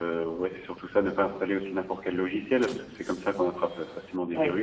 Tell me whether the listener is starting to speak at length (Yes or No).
Yes